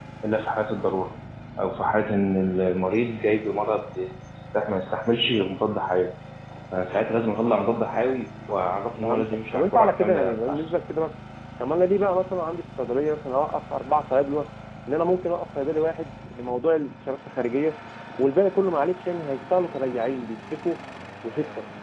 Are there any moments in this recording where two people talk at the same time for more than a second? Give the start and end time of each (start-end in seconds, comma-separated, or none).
9.0-10.6